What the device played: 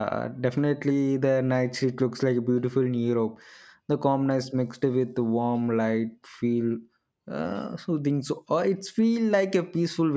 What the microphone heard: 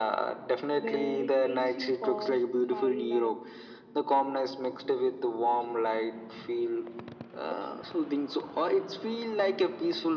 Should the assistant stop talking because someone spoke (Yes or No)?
Yes